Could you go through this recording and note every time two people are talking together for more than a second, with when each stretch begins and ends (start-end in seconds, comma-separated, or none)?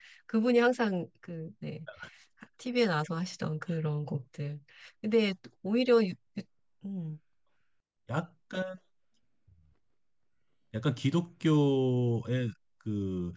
none